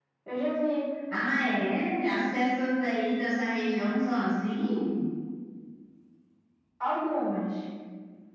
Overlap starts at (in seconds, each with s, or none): none